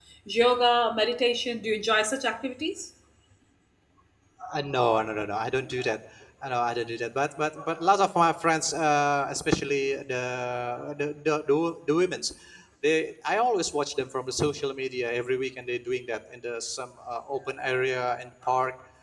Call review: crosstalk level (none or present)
none